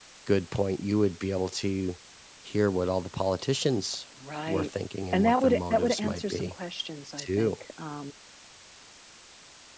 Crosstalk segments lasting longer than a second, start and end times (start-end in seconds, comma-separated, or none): 5.1-6.5